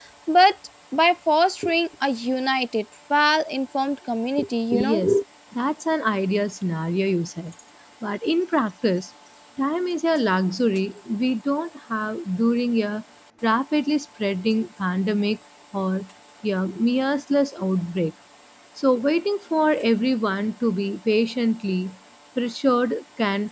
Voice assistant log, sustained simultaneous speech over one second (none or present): none